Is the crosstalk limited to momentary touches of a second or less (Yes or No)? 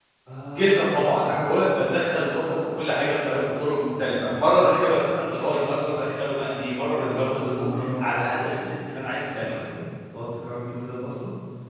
No